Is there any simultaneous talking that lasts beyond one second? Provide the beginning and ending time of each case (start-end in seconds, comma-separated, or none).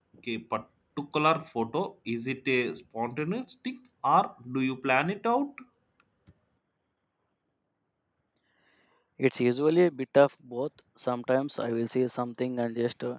none